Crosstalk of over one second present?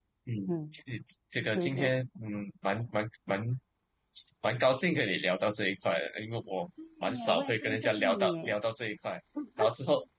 Yes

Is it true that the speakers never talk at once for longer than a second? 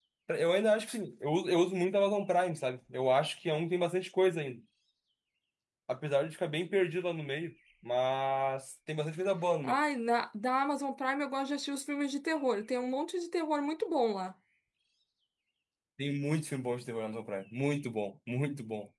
Yes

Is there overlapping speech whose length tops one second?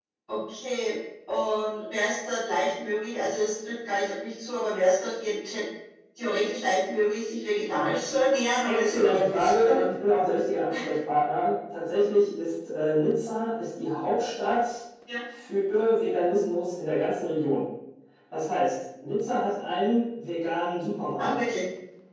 Yes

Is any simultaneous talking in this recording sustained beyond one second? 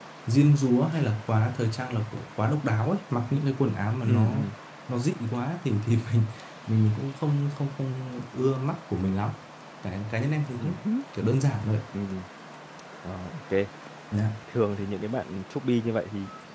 No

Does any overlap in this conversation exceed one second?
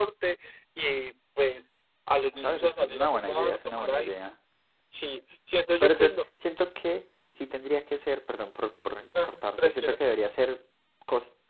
Yes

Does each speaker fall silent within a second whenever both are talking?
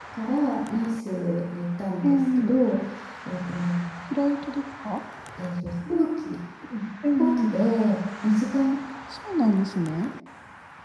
Yes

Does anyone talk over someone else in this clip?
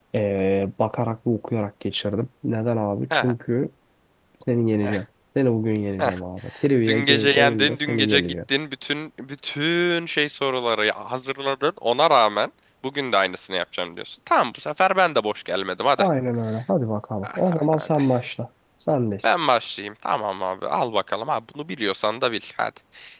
Yes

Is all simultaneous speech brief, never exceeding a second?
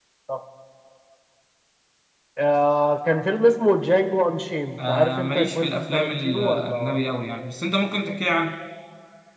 No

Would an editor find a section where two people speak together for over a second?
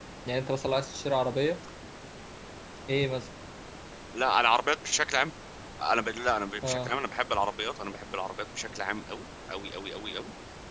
No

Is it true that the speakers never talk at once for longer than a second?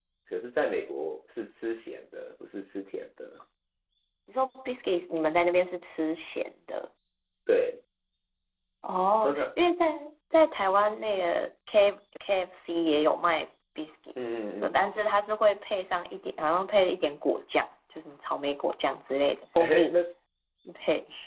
Yes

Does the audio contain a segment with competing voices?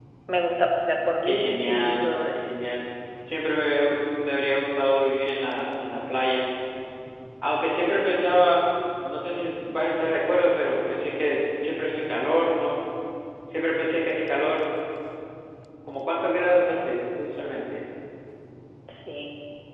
Yes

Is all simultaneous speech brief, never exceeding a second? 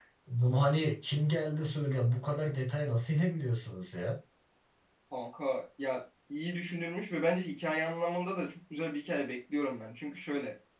Yes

